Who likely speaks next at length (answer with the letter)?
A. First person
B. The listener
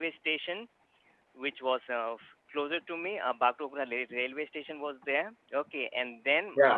A